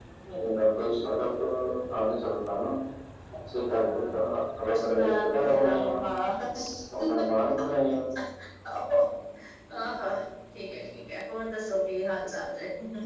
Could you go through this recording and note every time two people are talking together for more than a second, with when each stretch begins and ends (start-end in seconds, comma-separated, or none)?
4.6-6.0